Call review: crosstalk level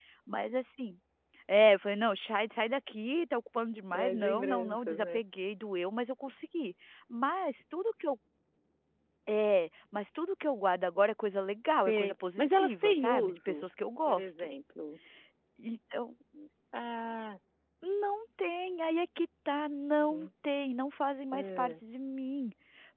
present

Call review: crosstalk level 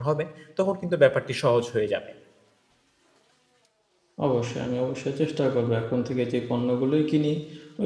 none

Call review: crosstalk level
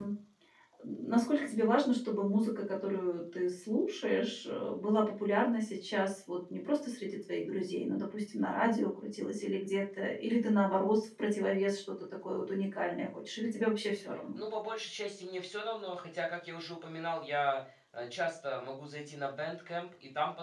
none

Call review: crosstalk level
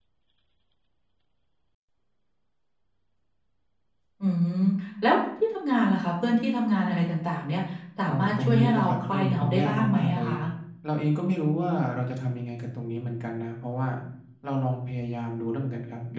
present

